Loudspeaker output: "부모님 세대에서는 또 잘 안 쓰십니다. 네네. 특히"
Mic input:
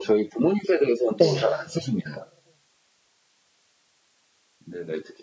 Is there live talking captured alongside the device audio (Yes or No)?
Yes